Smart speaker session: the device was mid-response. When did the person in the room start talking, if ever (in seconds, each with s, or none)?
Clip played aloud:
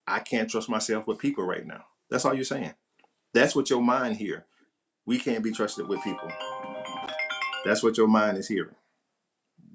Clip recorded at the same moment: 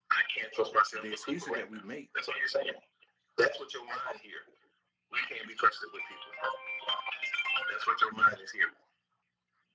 0.9 s